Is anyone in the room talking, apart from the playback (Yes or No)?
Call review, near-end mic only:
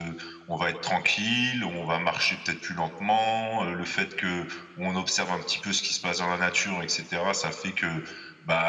No